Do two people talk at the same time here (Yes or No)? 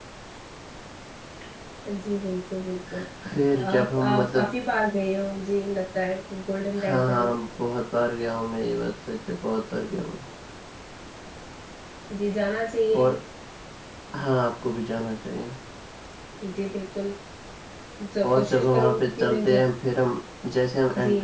Yes